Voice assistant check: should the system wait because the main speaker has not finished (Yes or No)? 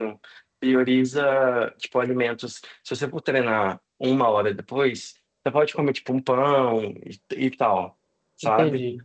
Yes